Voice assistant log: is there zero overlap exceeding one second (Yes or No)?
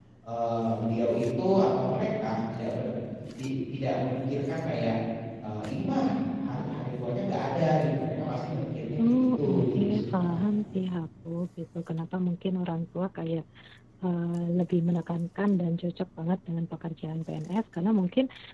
No